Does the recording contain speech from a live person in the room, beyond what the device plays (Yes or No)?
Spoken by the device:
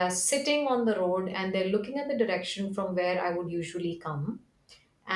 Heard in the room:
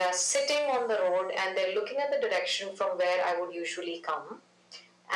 No